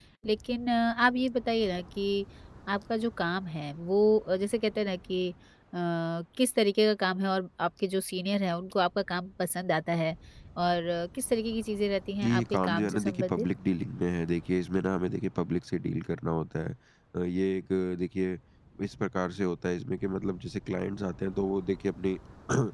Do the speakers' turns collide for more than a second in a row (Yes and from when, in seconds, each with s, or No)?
Yes, from 12.2 s